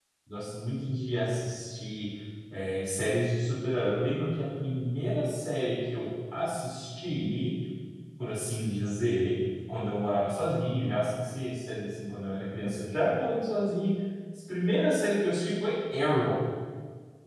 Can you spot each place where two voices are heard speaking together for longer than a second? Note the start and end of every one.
none

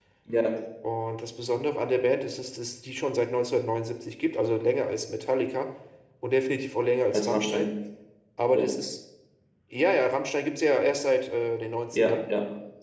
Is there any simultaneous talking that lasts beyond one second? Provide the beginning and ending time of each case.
none

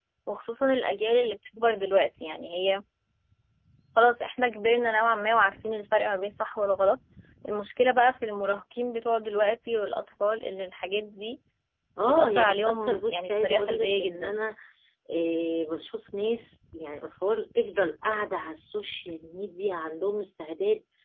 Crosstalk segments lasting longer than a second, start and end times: 12.1-14.4

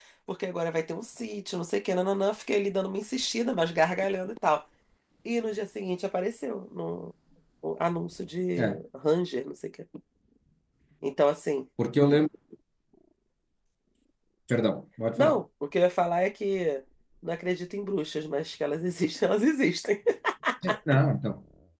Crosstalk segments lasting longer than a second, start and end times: none

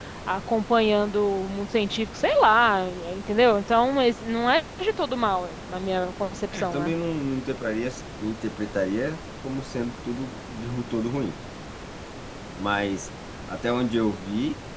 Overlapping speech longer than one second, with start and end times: none

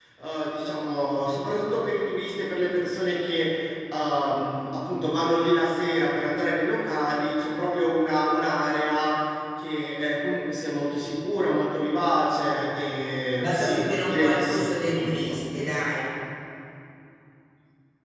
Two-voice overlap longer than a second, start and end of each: 13.4-15.4

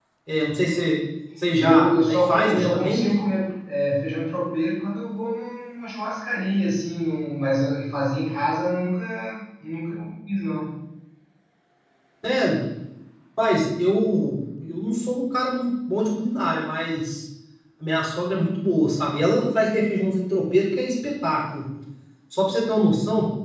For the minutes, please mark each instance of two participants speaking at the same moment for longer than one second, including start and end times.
1.6-3.1

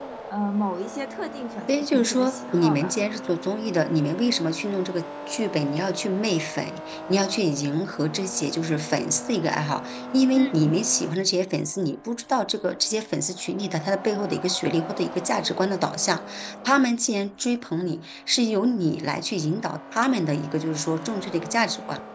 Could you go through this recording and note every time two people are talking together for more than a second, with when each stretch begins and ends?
1.7-3.4

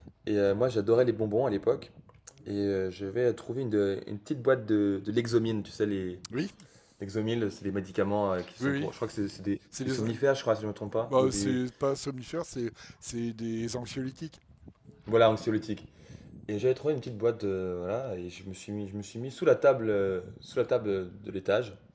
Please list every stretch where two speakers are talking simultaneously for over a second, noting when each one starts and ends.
none

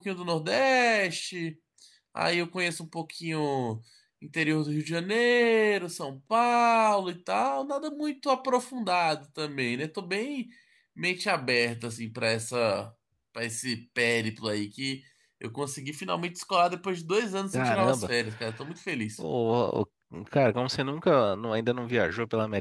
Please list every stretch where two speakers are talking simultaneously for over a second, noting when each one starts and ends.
none

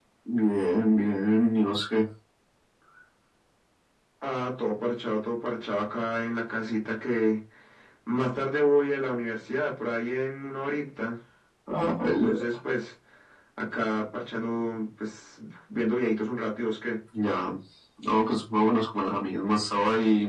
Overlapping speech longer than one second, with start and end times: none

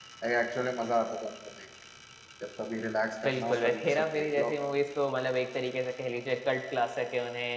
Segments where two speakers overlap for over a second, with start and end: 3.2-4.5

